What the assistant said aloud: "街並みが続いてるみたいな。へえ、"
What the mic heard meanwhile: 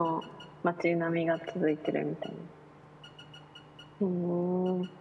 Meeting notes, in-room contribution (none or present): none